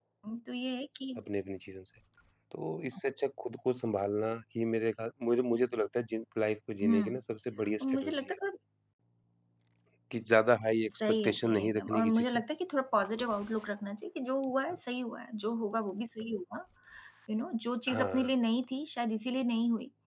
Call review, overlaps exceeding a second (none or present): present